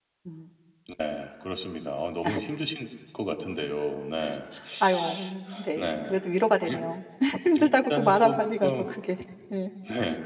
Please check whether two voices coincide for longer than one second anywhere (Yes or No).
Yes